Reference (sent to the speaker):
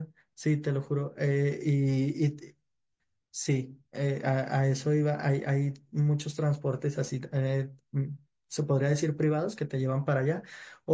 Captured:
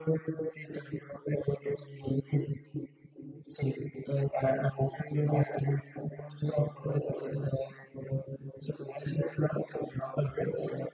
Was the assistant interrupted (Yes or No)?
No